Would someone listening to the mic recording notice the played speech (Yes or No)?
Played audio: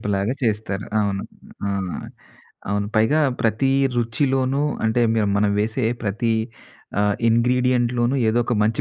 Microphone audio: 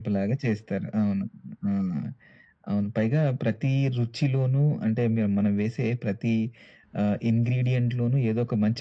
Yes